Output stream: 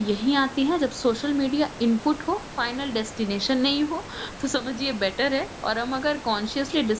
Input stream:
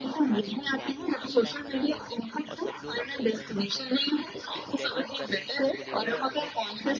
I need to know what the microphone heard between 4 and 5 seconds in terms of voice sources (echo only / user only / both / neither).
both